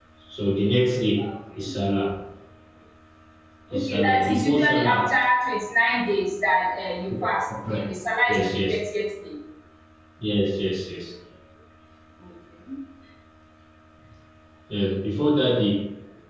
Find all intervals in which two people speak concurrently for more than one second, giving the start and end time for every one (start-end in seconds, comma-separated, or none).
3.7-5.1